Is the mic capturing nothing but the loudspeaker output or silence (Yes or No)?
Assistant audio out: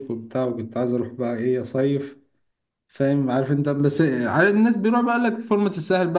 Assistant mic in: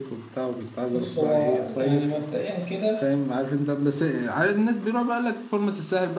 No